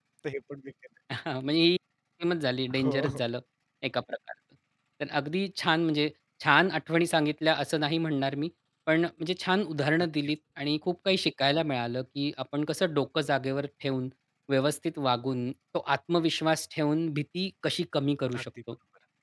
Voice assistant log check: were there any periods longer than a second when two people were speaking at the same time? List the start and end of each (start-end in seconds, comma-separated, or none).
none